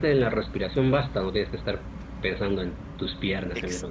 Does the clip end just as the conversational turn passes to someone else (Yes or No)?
Yes